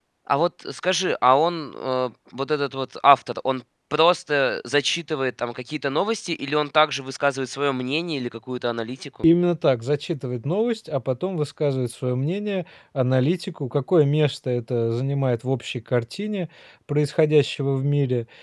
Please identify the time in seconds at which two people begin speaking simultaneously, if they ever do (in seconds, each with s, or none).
none